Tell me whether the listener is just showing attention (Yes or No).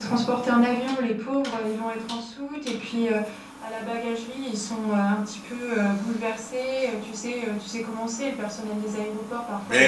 No